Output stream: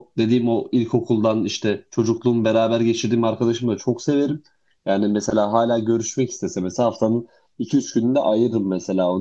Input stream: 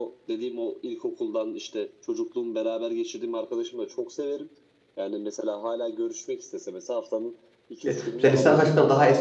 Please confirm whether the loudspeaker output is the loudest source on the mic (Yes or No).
No